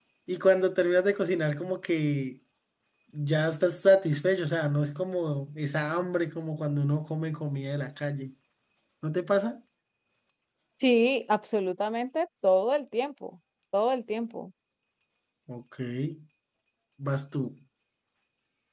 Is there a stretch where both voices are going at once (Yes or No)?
No